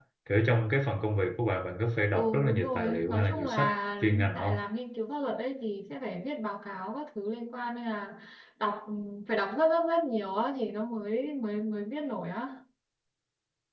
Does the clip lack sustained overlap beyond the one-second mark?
No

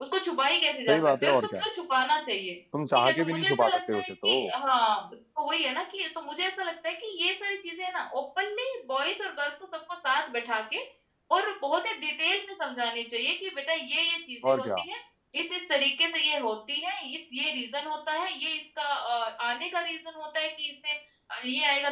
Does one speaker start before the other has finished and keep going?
Yes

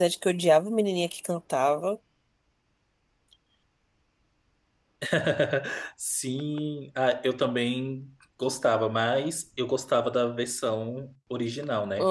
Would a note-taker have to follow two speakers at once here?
No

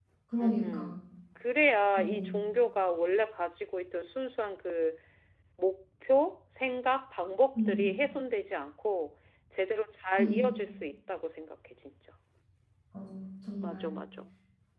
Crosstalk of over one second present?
No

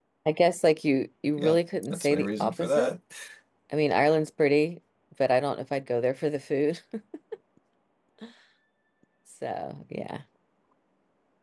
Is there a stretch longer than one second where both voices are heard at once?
Yes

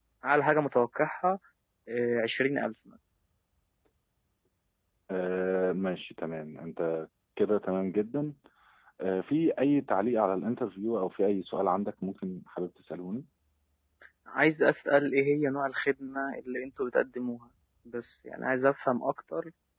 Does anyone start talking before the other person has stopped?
No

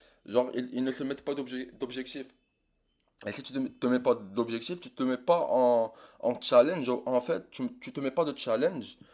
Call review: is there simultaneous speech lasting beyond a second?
No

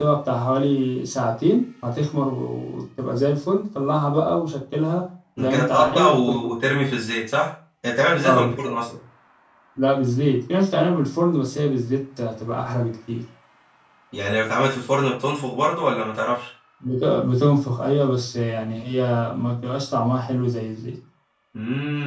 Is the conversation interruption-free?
No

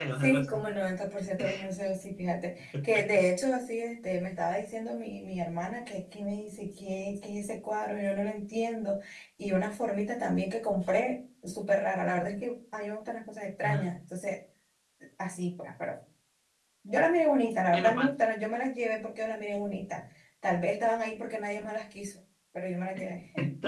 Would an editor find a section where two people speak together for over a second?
No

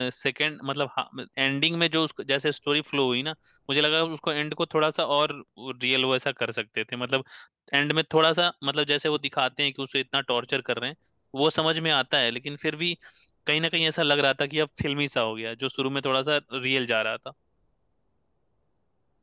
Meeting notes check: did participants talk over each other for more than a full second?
No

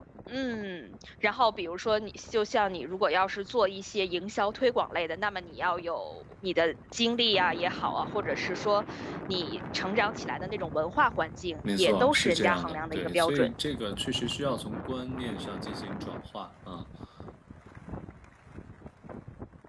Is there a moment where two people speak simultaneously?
Yes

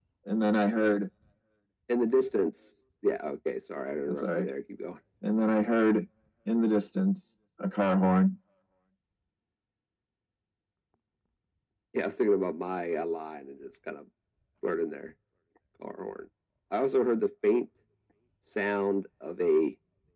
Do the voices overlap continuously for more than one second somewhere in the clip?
No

